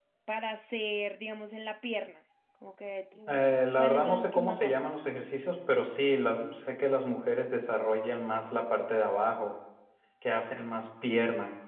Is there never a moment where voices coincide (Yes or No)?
No